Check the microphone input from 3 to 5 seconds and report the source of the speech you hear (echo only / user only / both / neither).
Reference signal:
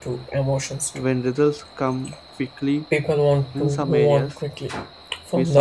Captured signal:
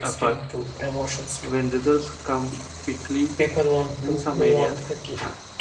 echo only